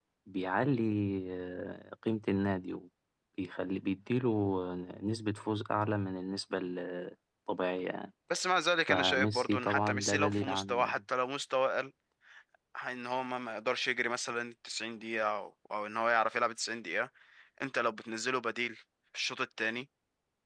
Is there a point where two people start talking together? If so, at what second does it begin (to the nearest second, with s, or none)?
9 s